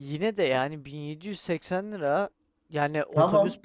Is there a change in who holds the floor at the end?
No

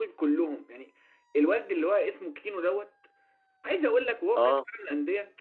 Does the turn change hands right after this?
No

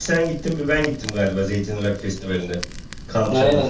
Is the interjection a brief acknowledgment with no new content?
No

